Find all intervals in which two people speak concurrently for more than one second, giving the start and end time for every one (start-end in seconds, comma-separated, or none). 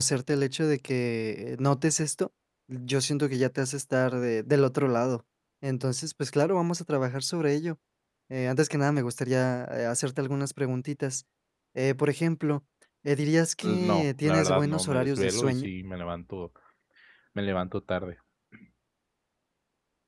13.6-15.7